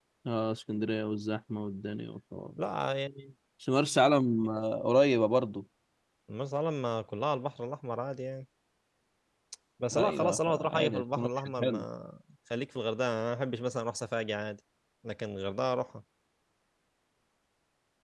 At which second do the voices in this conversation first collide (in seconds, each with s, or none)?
10.0 s